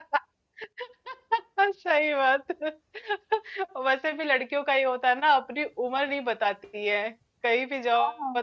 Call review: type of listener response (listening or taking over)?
listening